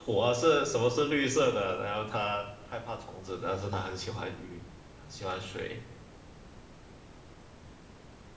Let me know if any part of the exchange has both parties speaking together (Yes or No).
No